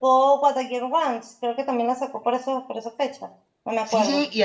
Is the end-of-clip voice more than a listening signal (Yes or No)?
Yes